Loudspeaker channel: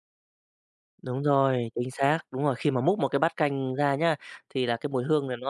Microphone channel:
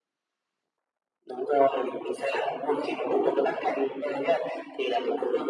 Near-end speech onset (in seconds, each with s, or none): none